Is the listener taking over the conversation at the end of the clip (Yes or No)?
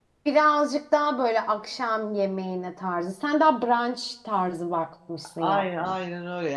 Yes